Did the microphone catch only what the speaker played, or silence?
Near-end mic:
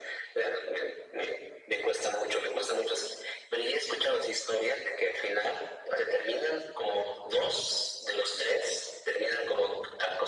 Yes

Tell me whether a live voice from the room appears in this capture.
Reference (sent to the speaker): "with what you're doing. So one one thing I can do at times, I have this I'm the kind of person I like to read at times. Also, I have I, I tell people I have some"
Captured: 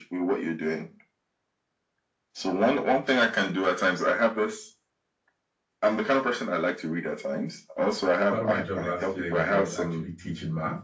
Yes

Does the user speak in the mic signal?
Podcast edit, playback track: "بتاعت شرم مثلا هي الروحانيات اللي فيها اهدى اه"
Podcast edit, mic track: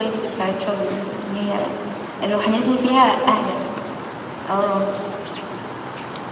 No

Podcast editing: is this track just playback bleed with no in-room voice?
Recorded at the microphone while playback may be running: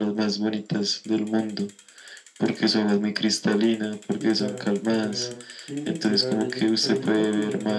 No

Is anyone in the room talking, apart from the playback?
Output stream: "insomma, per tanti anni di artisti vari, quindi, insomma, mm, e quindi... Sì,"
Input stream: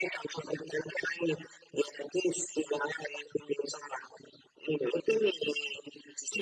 No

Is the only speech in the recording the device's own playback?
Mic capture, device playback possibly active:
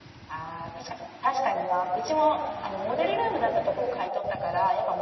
Yes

